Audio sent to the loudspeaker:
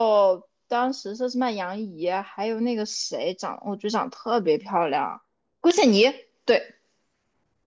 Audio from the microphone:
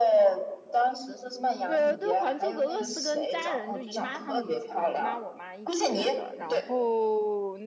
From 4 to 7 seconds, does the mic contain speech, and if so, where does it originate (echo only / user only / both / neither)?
both